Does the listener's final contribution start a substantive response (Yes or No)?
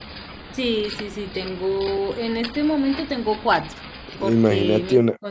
Yes